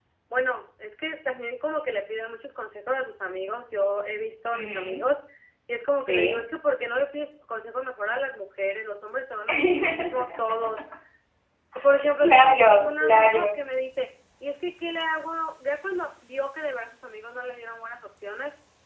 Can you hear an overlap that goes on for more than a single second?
Yes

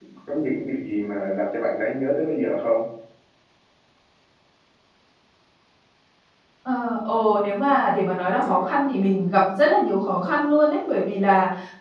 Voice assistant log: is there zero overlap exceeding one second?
Yes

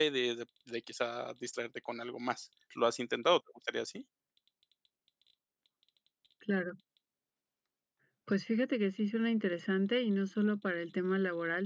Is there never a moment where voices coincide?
Yes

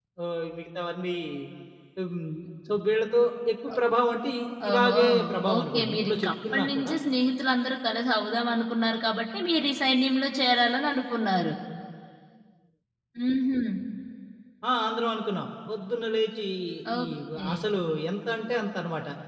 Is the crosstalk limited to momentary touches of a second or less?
No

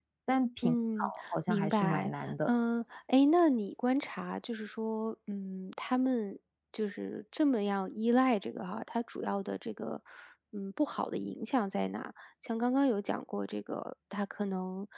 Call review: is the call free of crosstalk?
No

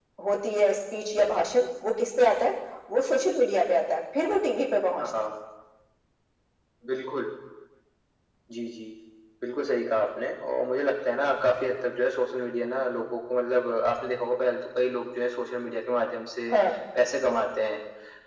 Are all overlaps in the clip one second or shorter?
Yes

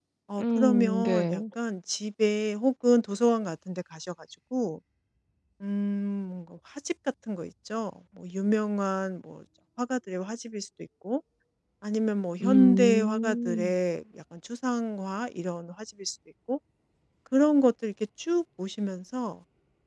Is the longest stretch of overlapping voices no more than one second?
No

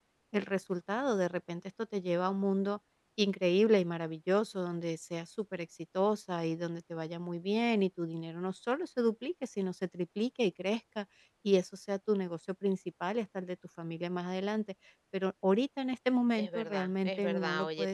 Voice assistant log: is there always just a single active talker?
No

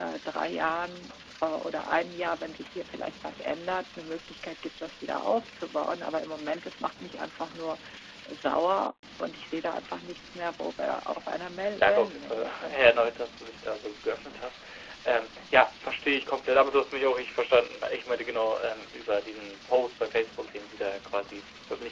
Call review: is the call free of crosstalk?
No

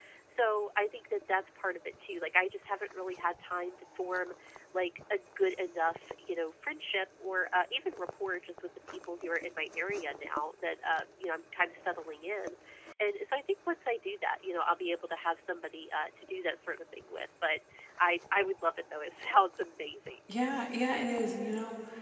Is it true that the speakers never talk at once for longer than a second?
Yes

